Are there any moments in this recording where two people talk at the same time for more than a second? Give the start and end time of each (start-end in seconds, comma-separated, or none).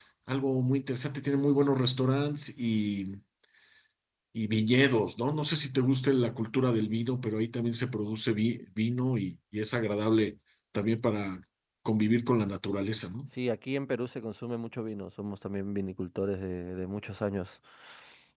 none